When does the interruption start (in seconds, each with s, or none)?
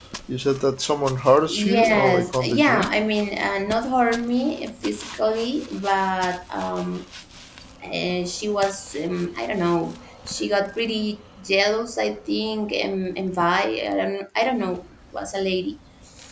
1.5 s